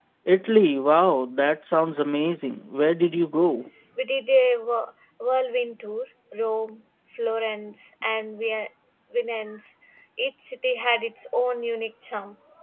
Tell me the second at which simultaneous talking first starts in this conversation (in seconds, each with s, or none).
none